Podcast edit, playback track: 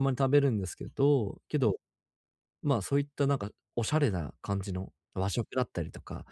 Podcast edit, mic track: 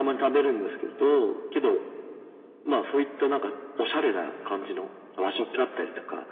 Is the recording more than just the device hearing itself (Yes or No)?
No